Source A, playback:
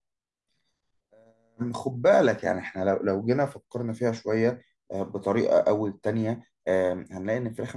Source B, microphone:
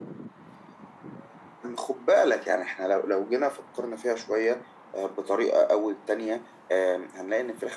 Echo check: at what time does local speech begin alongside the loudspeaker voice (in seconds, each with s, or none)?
none